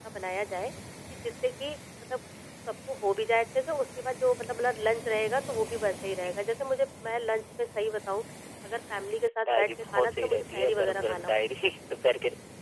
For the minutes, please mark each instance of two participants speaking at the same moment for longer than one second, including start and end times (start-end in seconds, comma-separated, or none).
9.5-11.3